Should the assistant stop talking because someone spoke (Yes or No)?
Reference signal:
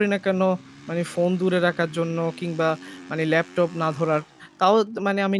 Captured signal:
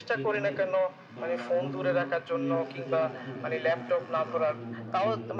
Yes